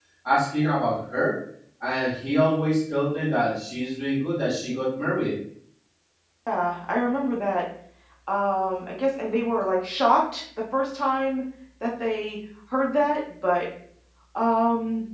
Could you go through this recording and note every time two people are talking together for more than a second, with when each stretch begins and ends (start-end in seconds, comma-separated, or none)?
none